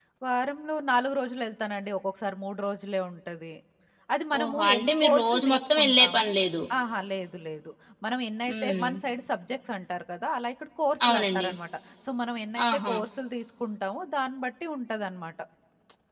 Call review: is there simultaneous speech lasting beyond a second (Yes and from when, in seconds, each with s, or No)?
Yes, from 4.4 s